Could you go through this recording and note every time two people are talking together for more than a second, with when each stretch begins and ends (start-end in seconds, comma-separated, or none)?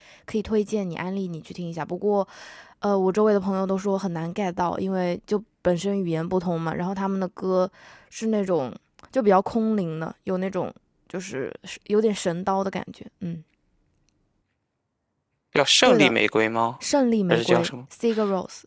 none